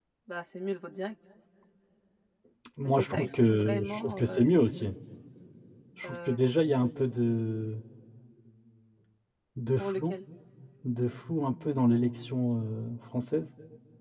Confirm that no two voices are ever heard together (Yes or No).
No